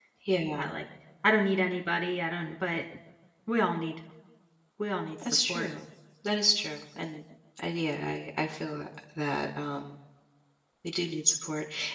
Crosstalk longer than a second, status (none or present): none